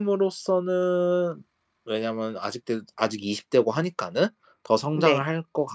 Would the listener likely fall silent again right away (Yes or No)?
Yes